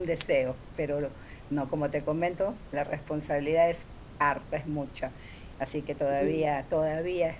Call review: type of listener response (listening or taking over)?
listening